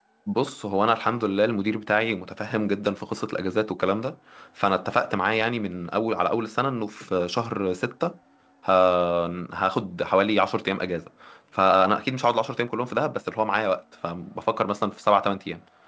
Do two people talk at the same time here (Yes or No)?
No